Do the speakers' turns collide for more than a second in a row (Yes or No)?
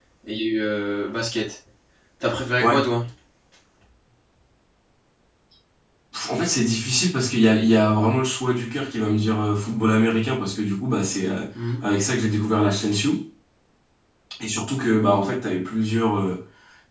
No